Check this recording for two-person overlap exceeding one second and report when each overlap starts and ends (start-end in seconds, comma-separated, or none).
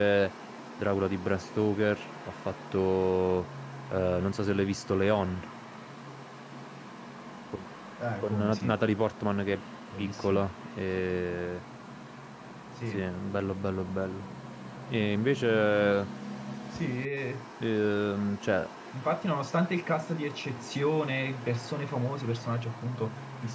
none